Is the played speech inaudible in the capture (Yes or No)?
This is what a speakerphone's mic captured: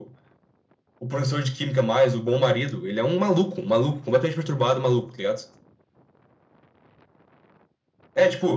No